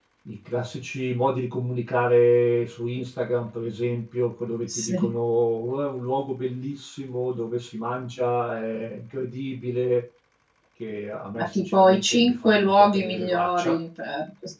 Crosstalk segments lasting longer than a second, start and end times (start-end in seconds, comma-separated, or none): 11.4-13.8